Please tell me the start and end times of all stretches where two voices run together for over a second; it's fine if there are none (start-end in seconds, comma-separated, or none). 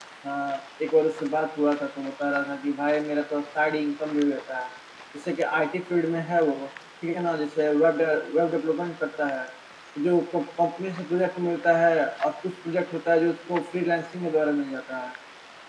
none